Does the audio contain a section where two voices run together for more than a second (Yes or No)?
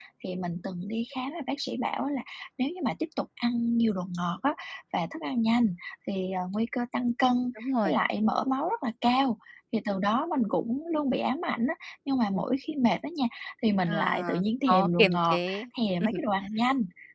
Yes